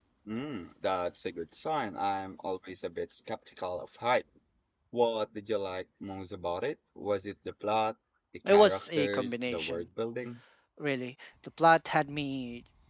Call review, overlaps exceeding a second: present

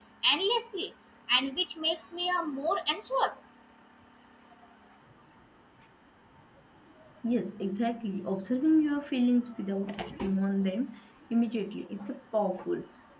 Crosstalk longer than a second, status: none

